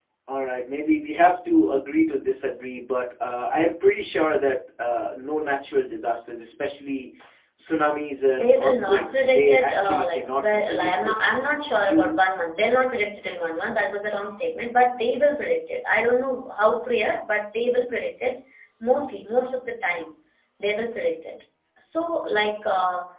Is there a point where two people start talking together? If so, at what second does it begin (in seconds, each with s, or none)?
8.3 s